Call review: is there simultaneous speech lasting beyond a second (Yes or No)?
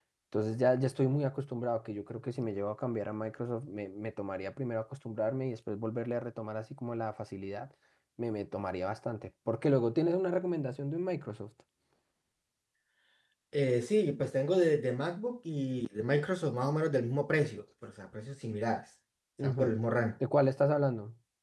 No